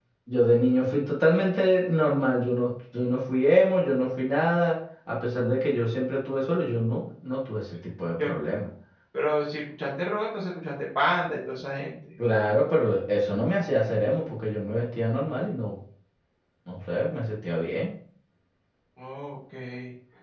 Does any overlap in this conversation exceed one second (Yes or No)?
No